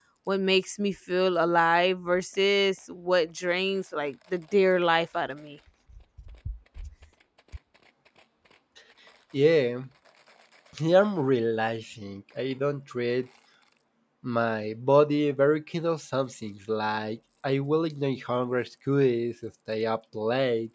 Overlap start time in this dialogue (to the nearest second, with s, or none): none